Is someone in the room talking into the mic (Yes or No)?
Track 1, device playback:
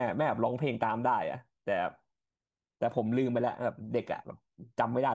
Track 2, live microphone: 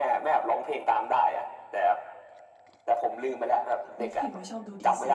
Yes